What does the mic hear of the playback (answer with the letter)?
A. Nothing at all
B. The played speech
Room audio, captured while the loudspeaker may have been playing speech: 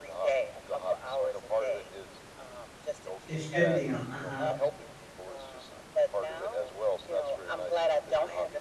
B